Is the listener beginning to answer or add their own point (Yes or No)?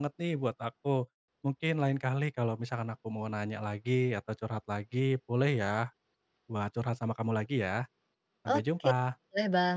Yes